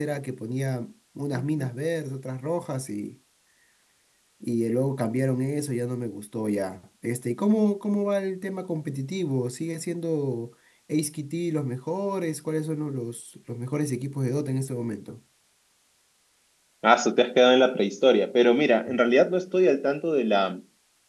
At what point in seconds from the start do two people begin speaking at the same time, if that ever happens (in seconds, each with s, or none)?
none